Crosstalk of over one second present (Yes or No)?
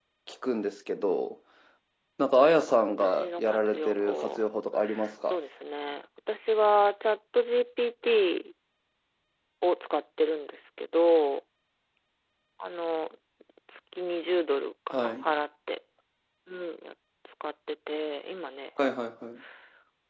Yes